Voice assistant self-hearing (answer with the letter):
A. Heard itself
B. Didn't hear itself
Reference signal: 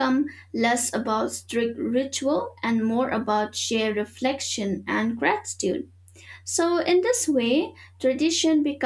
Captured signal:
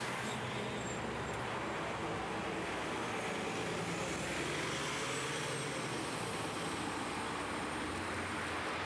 B